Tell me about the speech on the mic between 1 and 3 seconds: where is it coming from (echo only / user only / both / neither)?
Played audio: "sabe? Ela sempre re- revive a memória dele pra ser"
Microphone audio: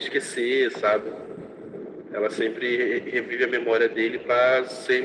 echo only